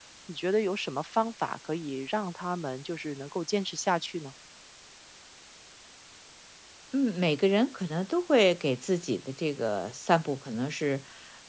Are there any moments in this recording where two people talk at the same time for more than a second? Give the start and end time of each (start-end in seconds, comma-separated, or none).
none